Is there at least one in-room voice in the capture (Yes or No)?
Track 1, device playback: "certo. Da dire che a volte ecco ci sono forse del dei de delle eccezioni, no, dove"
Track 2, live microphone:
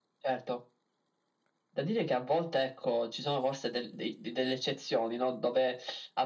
No